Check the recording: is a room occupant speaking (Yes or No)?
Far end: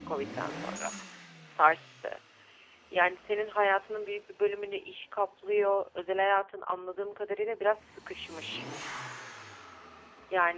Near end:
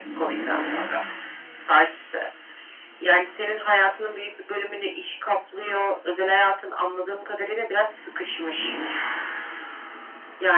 No